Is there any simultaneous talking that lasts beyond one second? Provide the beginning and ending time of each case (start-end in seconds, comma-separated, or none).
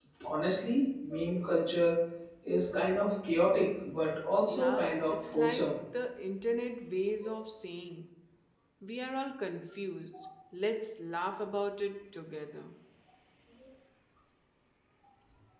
4.5-5.7